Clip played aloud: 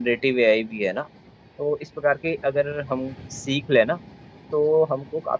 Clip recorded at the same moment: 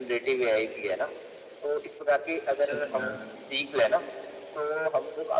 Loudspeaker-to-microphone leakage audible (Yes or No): Yes